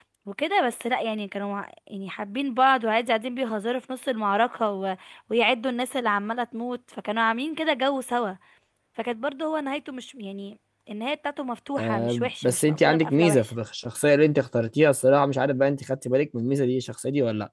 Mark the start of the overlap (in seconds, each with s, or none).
11.8 s